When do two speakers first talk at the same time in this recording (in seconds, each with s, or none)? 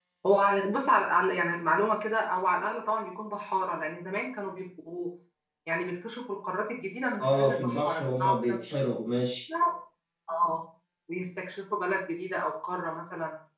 7.2 s